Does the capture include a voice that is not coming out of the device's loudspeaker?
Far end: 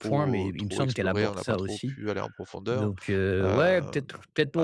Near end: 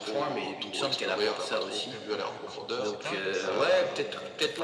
Yes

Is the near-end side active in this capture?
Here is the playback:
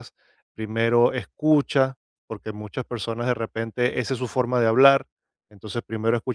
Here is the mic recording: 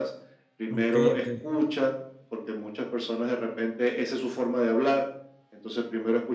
Yes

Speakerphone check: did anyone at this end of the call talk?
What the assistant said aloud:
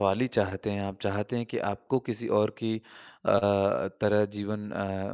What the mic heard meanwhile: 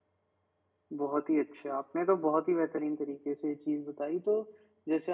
Yes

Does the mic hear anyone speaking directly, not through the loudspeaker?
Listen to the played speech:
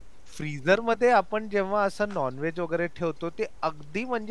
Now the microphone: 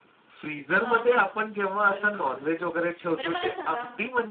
Yes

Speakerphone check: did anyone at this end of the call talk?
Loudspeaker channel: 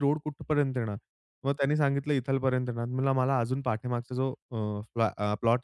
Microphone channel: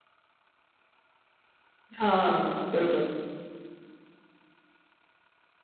Yes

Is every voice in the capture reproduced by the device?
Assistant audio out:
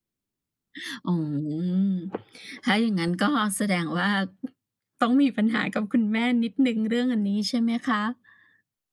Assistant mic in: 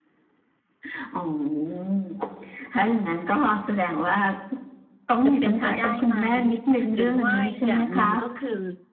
No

